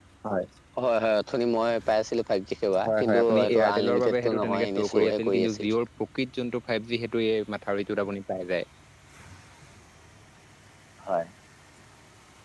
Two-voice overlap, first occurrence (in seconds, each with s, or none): 2.7 s